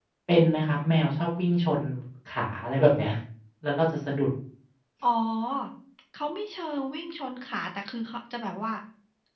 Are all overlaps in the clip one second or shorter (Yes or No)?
Yes